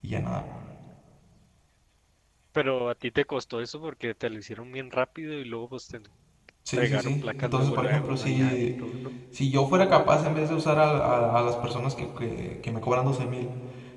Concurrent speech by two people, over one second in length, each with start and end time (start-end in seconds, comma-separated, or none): 6.8-8.7